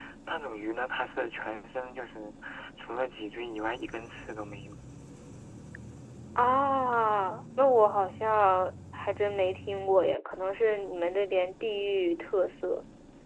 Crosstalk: none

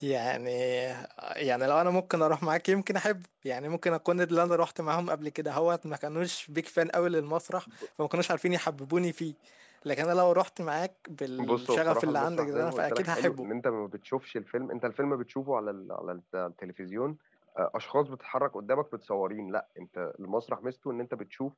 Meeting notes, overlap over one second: present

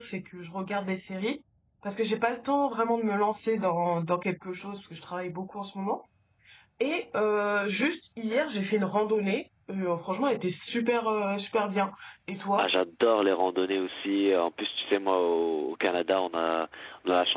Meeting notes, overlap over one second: none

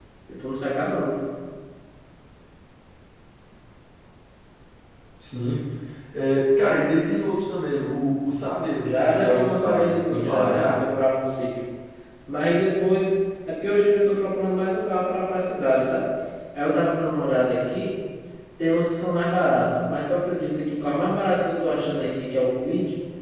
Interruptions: present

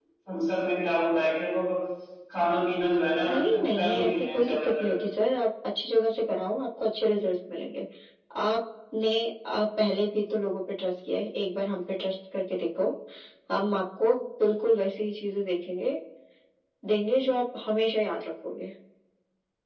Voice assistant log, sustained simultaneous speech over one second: present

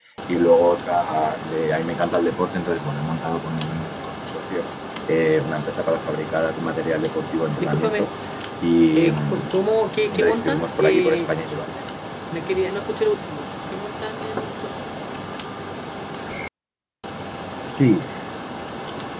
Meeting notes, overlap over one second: present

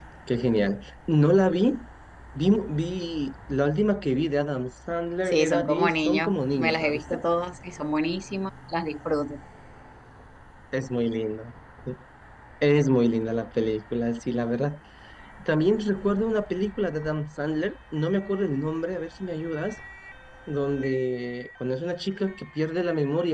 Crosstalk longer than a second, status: present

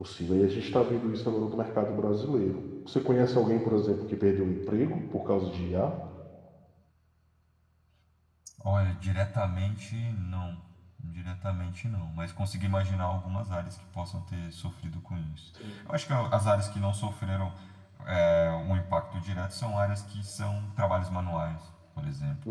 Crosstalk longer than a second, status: none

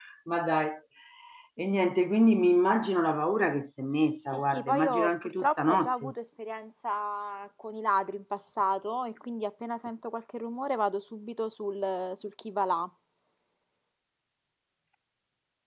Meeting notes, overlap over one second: present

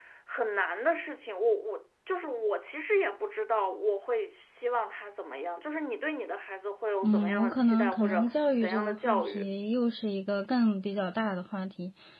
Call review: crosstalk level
present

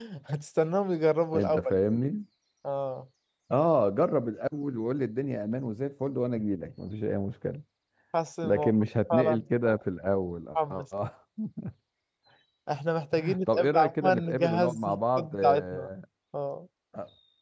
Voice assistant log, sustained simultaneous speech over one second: present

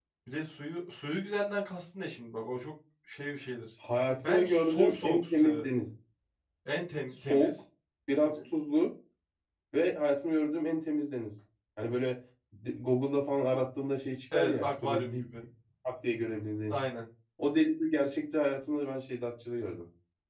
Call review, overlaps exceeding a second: present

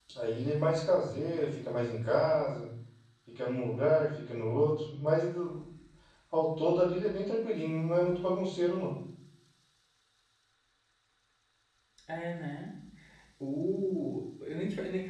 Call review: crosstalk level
none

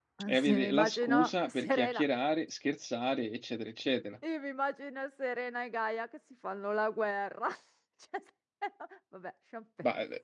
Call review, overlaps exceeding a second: present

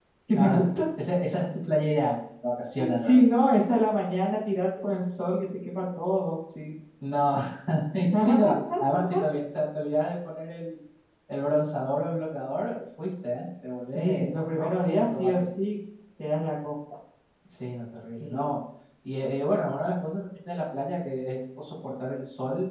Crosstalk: present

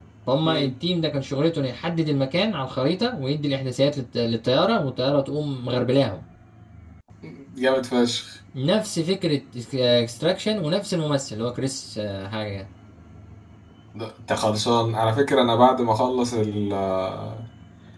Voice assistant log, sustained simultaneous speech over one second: none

